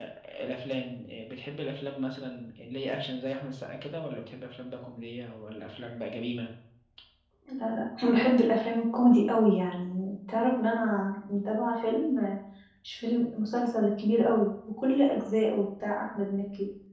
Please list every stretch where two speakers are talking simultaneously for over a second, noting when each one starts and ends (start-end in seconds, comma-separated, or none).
none